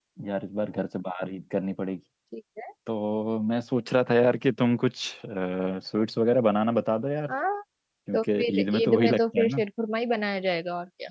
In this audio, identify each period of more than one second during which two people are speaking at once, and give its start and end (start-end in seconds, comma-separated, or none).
8.1-9.6